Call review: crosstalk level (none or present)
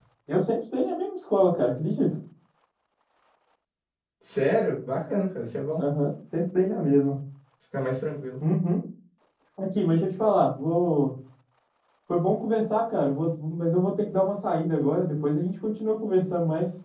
none